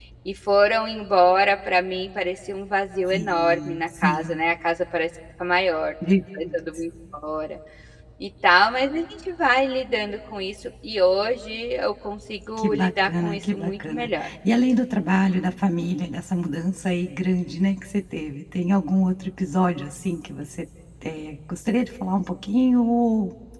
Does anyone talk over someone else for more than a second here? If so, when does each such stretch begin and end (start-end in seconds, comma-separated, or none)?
3.1-4.4, 12.6-14.1